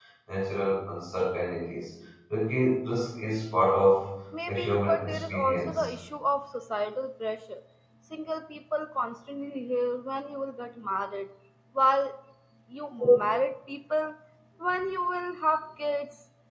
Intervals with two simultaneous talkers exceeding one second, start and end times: 4.5-5.8

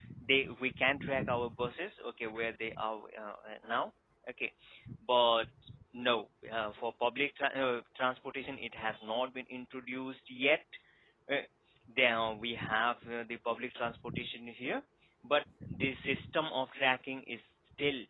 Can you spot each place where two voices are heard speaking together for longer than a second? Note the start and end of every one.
none

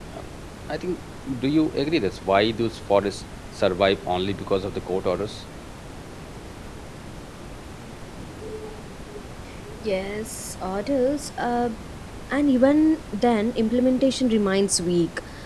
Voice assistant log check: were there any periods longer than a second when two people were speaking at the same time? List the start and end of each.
none

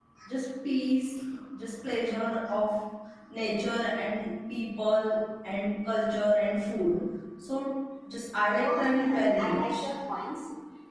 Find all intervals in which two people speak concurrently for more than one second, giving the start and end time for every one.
8.6-9.9

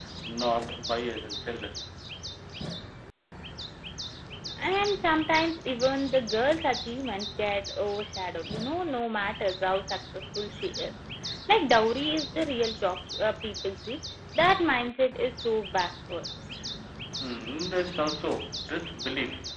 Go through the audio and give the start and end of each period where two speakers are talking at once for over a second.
none

